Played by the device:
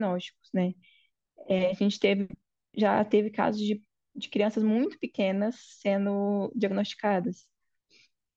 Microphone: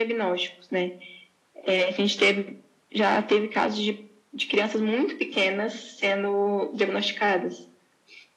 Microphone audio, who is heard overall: echo only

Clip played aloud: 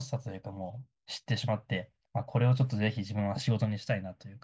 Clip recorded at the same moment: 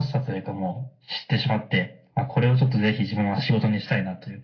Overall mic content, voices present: echo only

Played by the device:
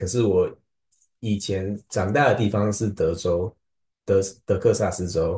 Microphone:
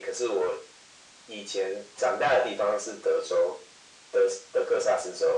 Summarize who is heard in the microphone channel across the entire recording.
echo only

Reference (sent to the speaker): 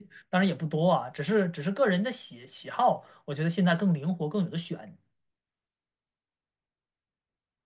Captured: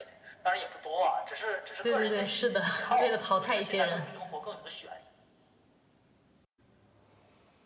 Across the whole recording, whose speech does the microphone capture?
both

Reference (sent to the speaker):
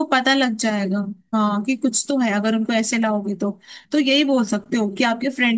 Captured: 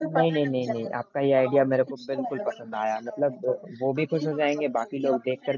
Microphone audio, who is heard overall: both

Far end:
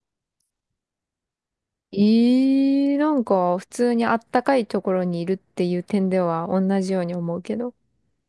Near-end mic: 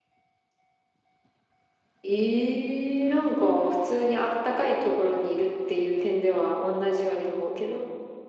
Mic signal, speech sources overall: echo only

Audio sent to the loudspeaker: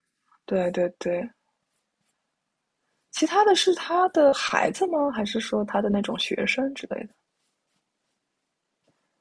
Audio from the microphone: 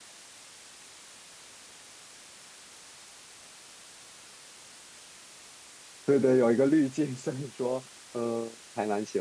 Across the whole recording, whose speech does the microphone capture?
user only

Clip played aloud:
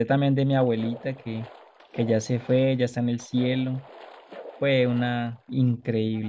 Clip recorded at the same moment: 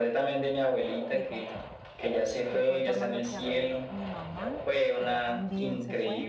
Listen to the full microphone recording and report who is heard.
both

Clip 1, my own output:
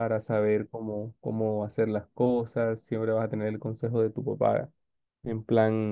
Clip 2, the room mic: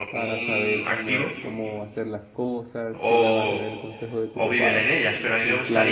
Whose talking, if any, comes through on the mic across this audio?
both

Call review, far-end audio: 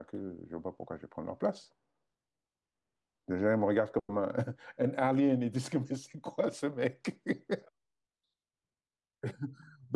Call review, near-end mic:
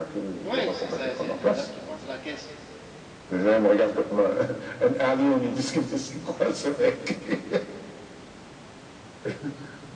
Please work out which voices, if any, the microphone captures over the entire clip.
both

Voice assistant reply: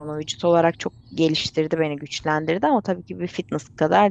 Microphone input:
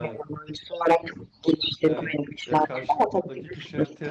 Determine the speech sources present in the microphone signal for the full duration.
both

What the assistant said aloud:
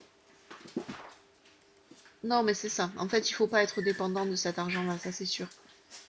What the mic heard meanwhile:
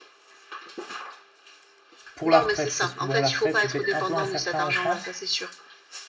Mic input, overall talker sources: both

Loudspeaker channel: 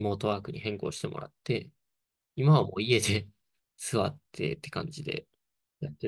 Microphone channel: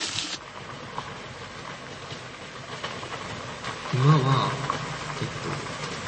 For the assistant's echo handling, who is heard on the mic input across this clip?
user only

